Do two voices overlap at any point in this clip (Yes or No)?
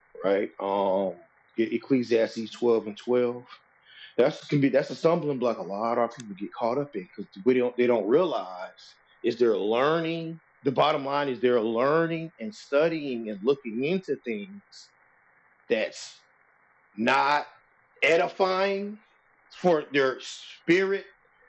No